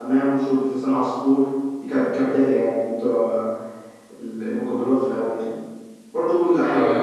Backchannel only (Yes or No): No